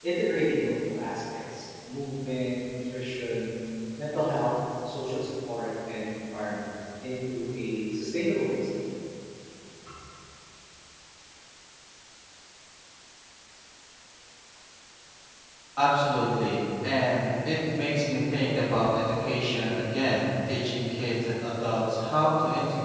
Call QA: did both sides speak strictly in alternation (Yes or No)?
Yes